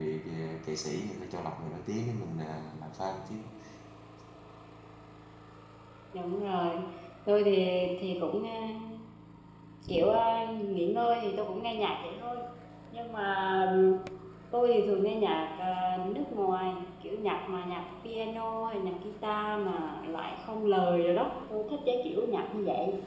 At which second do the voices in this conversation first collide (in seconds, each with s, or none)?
none